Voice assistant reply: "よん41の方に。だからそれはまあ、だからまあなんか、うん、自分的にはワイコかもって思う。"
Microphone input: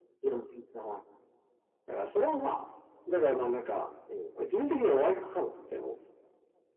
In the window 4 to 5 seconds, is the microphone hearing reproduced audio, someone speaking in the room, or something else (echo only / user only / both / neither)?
echo only